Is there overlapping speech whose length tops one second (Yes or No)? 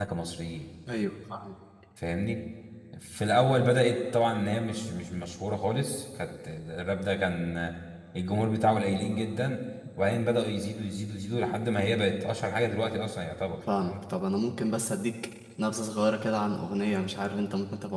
No